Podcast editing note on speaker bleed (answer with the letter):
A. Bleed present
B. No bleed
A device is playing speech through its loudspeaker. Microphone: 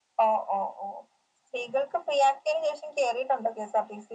A